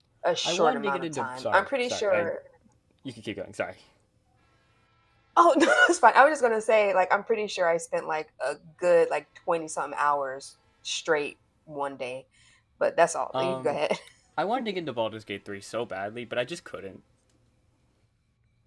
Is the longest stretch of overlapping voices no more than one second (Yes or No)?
No